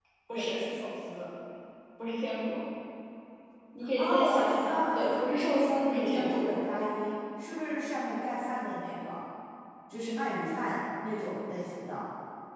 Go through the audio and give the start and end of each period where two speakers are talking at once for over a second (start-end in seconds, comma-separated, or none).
4.0-6.6